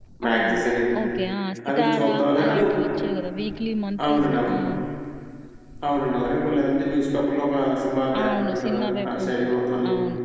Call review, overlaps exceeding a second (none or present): present